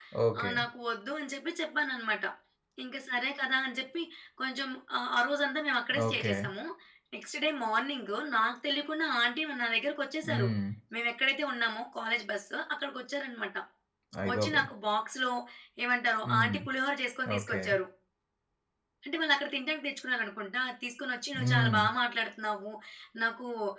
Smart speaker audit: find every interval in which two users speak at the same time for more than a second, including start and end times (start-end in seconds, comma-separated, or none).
none